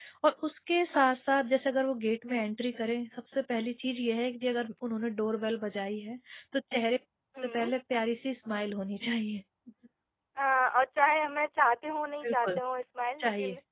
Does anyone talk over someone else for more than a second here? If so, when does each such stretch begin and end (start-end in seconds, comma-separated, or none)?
none